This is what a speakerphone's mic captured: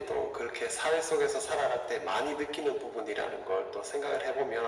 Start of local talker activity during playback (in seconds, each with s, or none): none